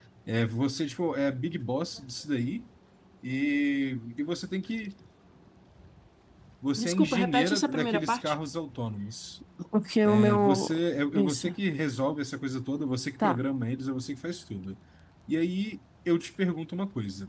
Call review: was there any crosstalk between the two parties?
Yes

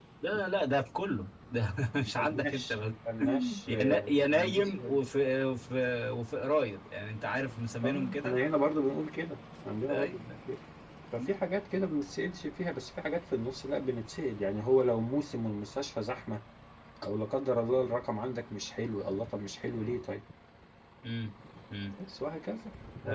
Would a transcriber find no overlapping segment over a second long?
No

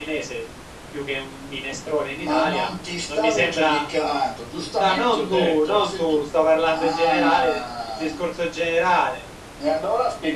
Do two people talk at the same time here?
Yes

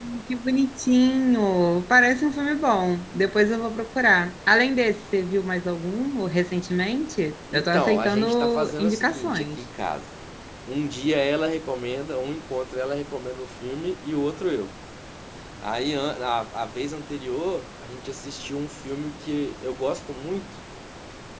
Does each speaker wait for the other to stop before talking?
No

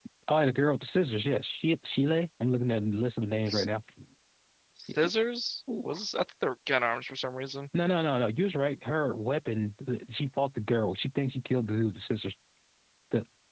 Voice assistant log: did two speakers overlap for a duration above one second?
No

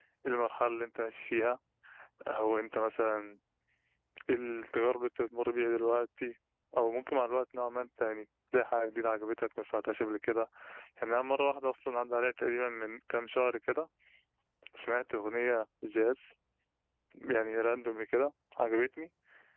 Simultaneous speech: No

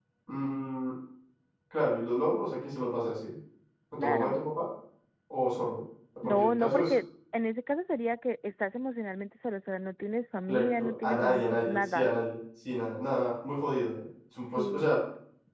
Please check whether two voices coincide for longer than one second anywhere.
Yes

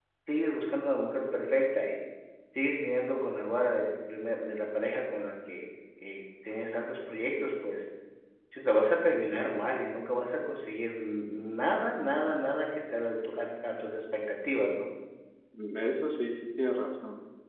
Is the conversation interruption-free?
Yes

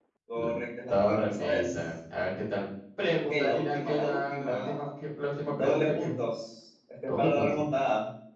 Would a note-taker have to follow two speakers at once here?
Yes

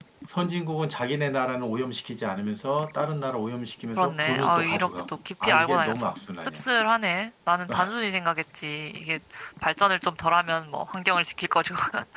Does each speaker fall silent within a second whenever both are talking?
No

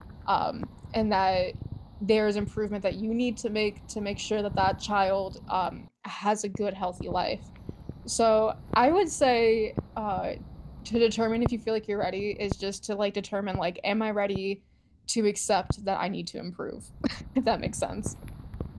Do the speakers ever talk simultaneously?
No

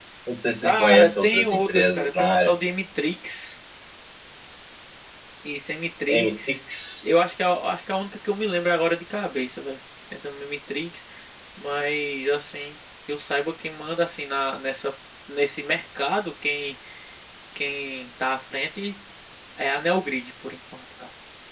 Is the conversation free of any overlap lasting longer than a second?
No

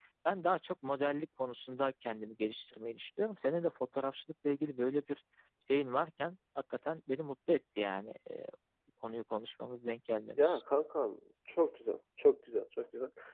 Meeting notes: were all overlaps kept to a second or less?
Yes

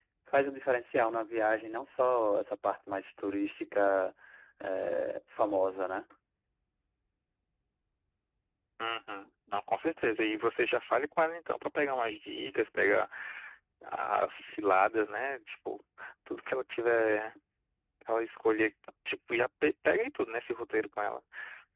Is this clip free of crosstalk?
Yes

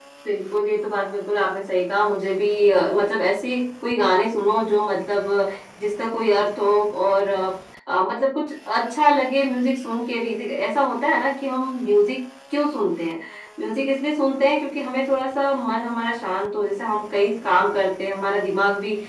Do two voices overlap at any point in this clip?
No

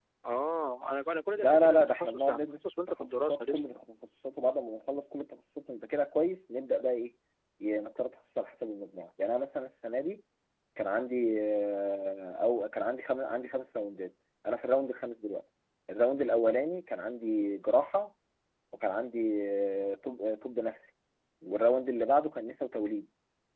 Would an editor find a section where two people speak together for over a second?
Yes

